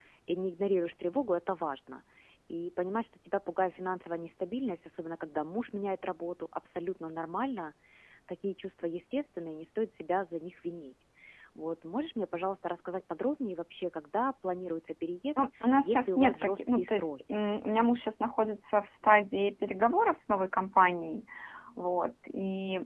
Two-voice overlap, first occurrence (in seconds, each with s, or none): 15.8 s